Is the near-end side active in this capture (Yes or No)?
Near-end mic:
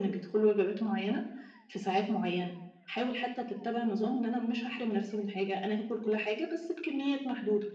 No